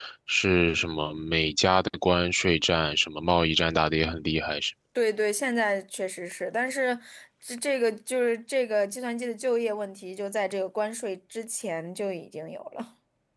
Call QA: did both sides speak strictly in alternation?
Yes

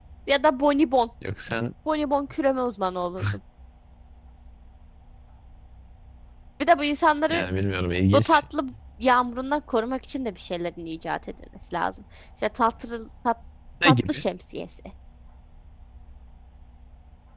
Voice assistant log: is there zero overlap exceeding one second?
Yes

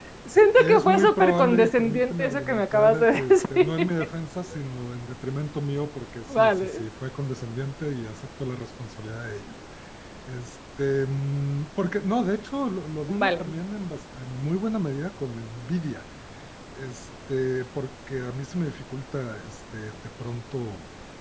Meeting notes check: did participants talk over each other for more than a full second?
Yes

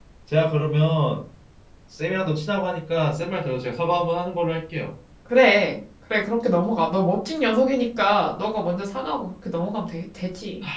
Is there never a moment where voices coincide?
Yes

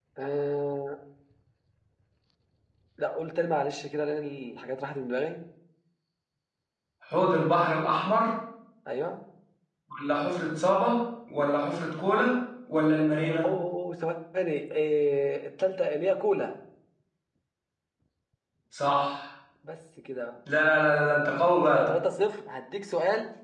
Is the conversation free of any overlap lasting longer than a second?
Yes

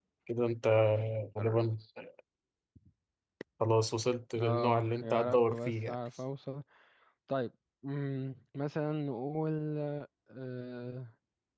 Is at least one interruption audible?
Yes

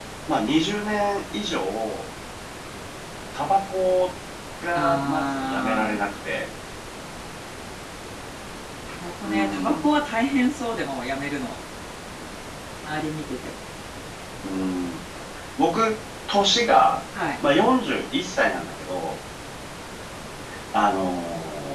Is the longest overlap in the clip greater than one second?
Yes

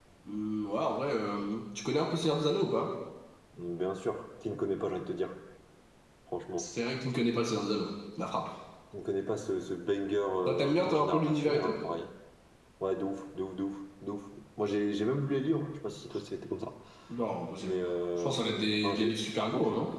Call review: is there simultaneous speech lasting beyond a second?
Yes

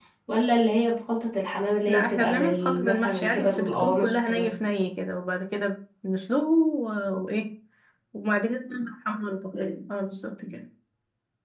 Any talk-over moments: Yes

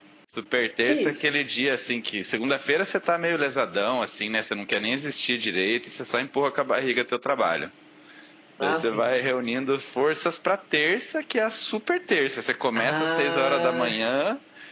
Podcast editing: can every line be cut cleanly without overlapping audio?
No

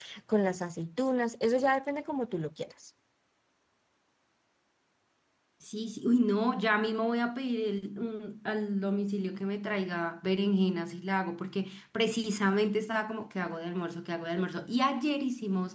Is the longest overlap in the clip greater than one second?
No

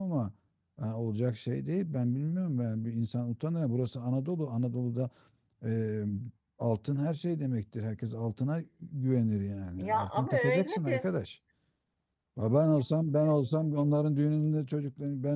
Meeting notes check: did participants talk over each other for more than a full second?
Yes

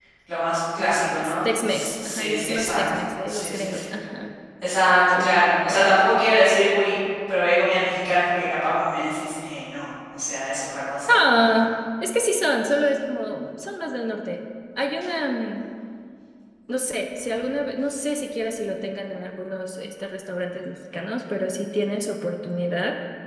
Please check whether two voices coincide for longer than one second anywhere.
Yes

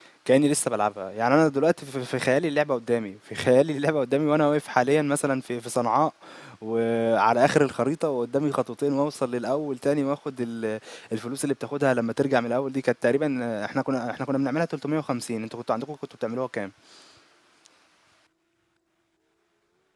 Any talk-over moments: No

